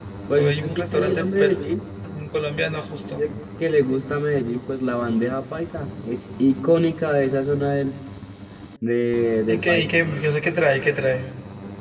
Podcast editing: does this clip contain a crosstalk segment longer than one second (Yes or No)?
Yes